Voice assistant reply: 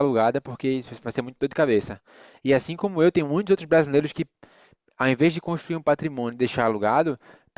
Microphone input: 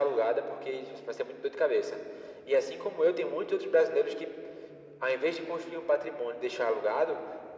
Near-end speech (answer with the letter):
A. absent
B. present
A